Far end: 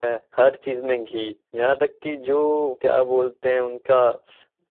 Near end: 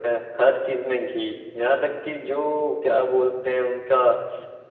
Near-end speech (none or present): none